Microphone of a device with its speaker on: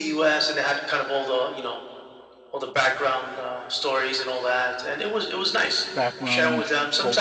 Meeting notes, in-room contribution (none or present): present